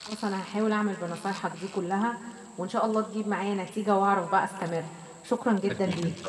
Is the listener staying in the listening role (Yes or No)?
No